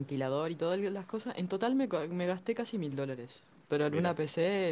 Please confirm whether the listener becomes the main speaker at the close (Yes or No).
No